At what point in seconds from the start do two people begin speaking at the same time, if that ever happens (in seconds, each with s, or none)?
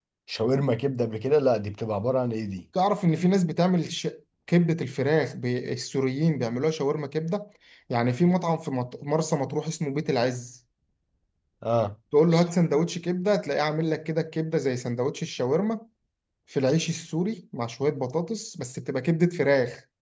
none